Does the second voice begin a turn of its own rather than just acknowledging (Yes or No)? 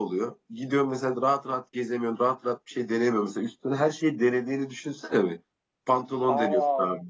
No